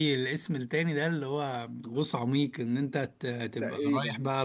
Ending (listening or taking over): listening